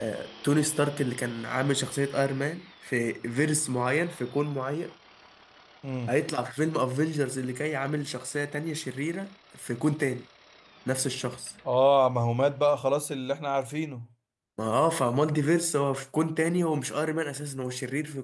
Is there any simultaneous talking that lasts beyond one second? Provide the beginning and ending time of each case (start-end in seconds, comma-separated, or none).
none